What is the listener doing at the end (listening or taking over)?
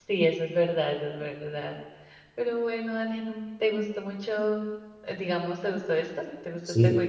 taking over